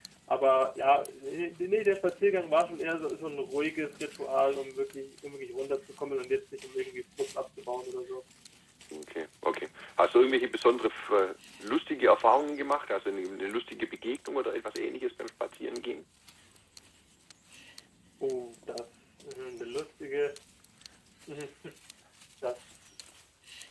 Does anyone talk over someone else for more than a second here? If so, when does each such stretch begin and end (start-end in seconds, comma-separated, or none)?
none